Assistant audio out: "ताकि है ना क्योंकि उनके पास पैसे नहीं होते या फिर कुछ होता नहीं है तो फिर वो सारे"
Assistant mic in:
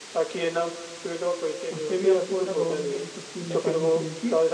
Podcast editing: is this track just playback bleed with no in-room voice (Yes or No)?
No